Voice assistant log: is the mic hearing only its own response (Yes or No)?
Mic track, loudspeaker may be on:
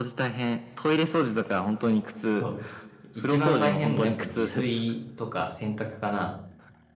No